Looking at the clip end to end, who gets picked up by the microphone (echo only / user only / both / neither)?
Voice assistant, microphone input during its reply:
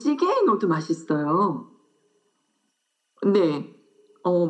echo only